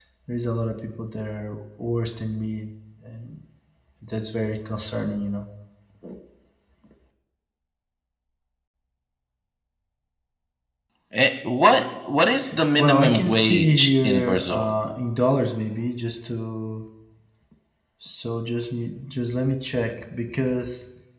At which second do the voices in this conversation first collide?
12.8 s

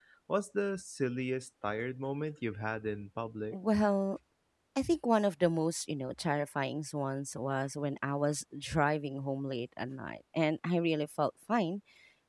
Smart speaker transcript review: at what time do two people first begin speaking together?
none

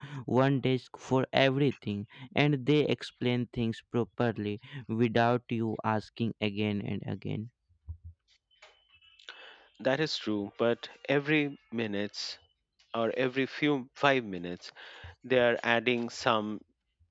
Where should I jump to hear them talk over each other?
none

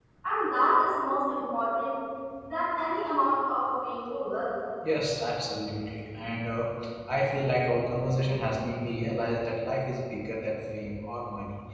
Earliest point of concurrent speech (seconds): none

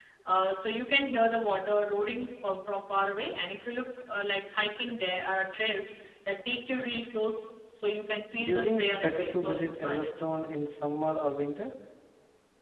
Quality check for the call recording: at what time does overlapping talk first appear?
8.3 s

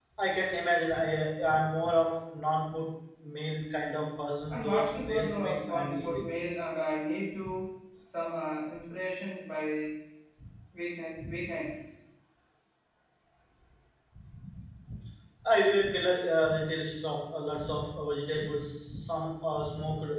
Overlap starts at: 4.5 s

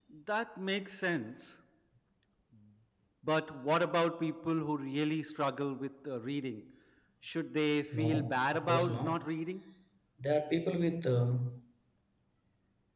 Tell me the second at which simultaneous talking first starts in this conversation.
7.9 s

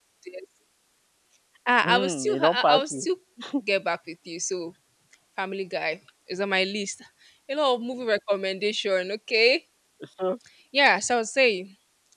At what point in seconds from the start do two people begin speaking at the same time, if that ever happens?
1.8 s

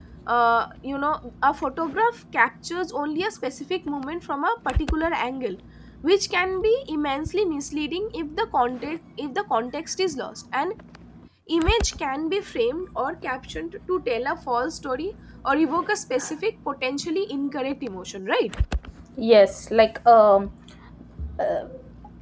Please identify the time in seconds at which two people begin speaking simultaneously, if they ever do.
none

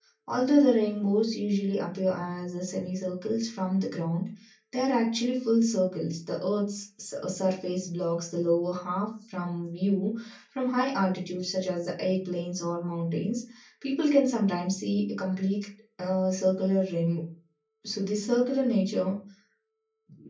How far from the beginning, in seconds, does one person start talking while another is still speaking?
none

